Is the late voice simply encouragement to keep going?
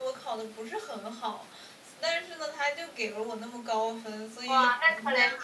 No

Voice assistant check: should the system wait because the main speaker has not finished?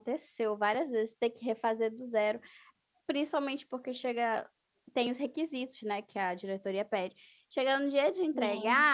Yes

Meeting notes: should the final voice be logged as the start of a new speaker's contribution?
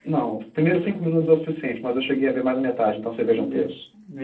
Yes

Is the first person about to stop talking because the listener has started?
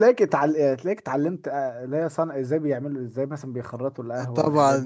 Yes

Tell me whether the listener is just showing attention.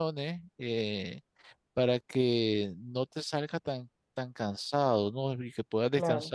Yes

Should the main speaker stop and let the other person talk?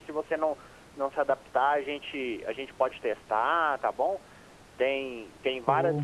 No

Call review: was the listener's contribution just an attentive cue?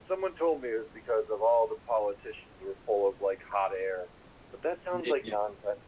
Yes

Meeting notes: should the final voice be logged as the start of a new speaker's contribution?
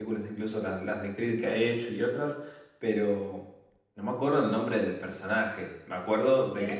Yes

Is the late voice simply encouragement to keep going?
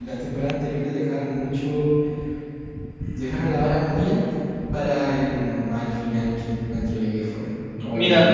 Yes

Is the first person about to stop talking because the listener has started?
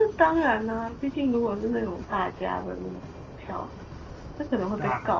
No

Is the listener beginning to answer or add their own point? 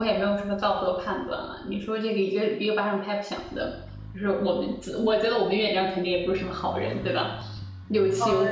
Yes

